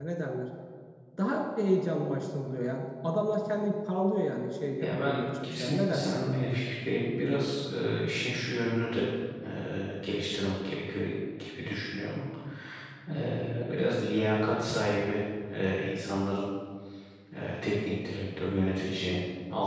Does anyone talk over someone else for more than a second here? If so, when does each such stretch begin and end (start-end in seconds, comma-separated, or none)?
4.8-6.2